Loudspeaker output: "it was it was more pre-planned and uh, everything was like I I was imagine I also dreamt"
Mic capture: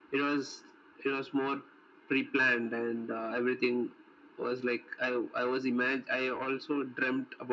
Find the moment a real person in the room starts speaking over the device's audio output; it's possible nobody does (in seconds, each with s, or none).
none